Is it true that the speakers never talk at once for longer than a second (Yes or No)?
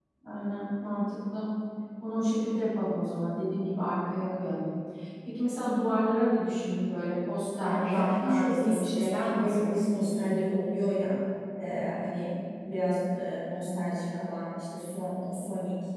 No